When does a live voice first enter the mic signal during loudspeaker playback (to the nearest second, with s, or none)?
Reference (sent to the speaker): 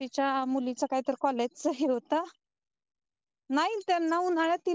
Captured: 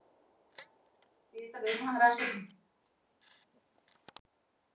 1 s